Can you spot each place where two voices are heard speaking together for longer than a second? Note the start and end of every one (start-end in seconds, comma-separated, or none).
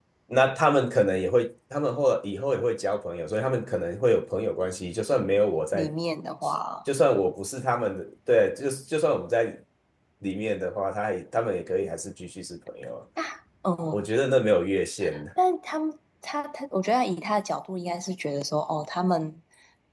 none